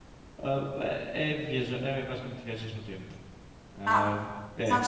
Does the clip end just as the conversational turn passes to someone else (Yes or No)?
Yes